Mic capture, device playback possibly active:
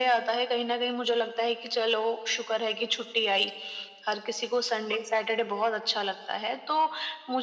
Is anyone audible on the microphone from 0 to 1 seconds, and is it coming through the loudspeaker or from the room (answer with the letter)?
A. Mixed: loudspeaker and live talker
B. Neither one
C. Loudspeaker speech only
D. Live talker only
C